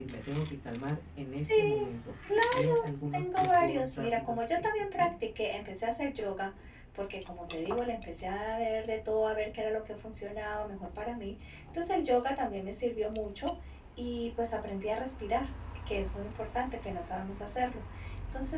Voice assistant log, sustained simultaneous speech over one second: present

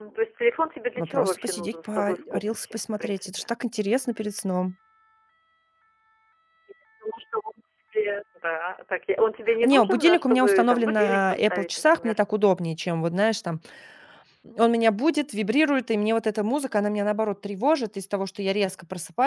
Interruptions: present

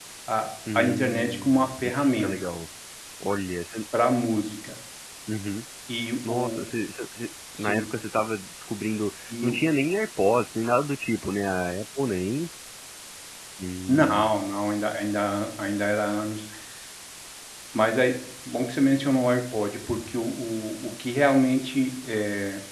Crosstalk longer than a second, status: present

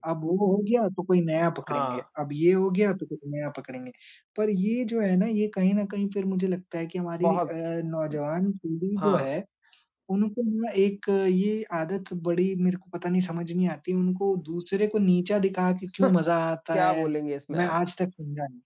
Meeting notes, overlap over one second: none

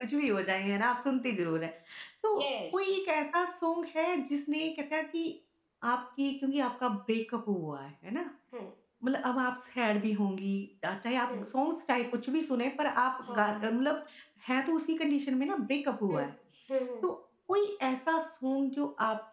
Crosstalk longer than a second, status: none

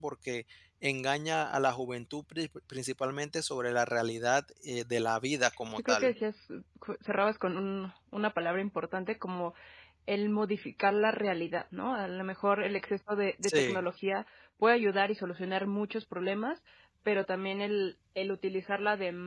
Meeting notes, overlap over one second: none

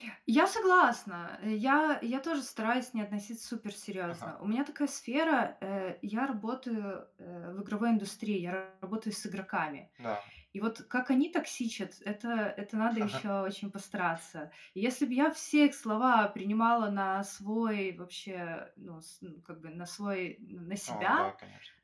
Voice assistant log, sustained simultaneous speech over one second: none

